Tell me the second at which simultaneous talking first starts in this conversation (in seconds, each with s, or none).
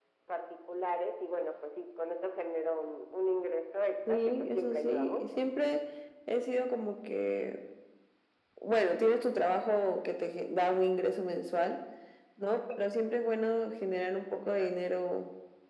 4.1 s